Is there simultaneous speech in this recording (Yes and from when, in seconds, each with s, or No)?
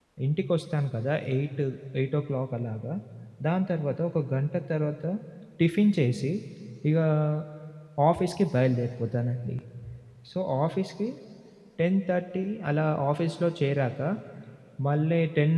No